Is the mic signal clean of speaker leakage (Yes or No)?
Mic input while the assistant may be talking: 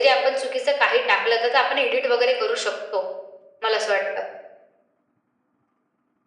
No